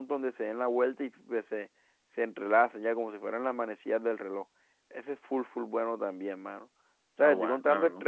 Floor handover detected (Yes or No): No